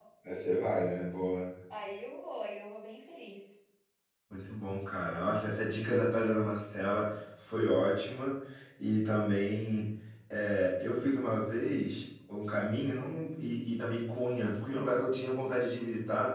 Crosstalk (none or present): none